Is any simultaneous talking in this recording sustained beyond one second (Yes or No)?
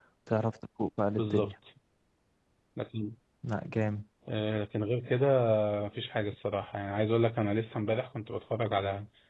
No